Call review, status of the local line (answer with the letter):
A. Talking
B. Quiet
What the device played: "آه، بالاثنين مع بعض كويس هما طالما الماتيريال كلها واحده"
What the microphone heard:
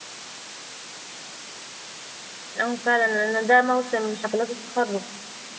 A